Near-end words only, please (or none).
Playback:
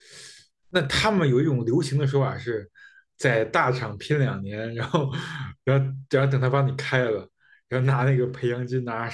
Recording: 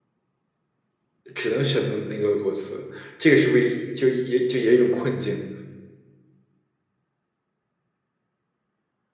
只能选择那个裸辞，这个是不是也就也就也有一种困境？